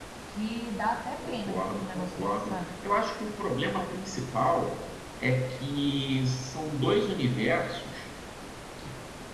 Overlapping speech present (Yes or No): Yes